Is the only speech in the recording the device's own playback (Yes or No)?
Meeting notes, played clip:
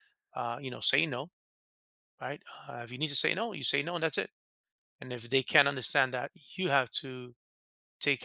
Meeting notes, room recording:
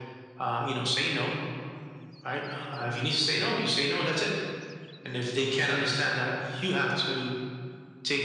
Yes